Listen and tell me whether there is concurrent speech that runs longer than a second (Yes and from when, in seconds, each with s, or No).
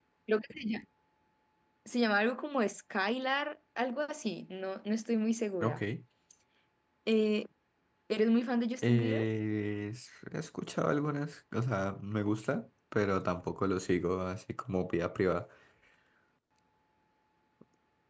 No